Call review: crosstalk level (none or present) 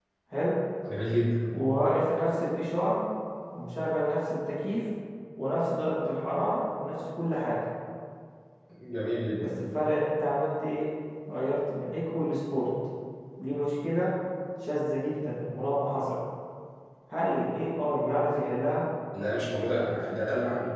none